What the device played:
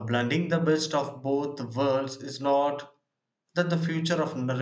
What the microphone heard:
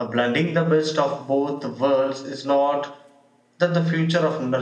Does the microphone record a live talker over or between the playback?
No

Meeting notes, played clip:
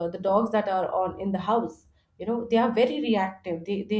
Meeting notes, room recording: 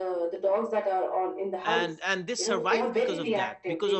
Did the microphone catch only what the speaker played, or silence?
No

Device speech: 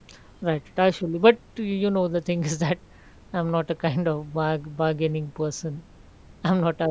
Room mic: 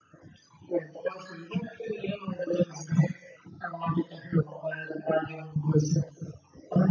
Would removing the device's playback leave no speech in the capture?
Yes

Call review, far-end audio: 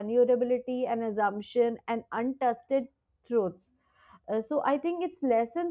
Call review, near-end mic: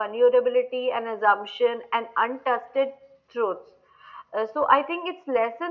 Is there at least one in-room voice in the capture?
No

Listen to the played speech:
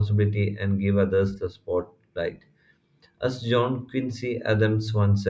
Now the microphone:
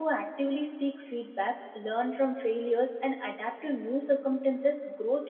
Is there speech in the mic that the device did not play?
Yes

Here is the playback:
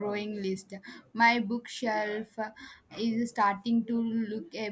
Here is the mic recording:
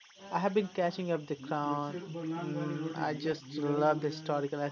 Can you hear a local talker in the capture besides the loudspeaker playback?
Yes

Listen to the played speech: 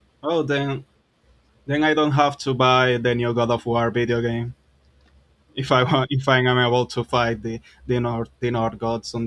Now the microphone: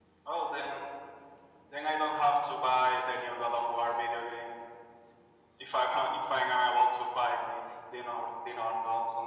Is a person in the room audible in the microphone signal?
No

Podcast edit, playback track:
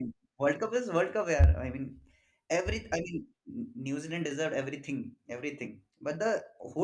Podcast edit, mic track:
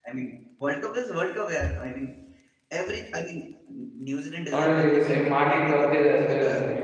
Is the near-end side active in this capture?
Yes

